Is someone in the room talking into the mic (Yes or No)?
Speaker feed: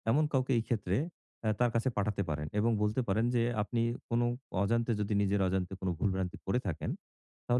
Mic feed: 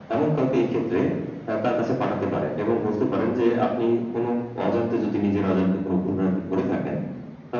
No